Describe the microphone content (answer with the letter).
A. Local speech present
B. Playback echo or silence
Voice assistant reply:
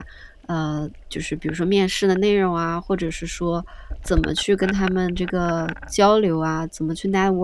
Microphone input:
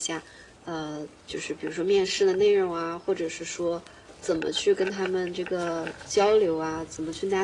B